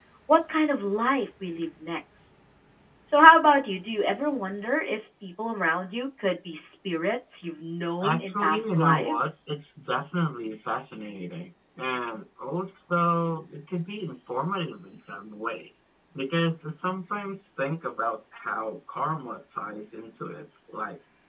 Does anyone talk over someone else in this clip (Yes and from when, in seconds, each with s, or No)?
Yes, from 8.0 s